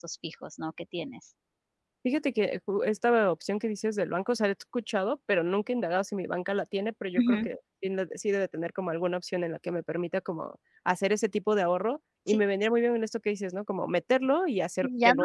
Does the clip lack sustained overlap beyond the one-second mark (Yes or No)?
Yes